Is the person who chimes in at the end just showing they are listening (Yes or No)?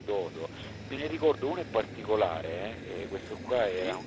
Yes